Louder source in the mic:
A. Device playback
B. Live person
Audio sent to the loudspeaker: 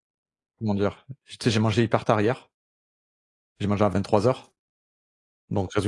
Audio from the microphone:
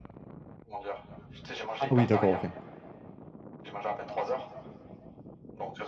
B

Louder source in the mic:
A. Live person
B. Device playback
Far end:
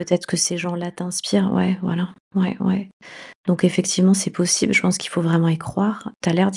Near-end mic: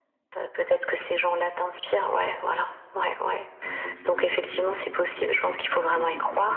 B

